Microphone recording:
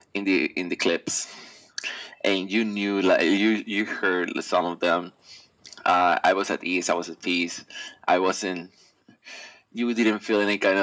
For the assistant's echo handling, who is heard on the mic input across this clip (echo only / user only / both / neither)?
echo only